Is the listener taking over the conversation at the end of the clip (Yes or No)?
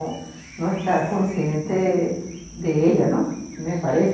Yes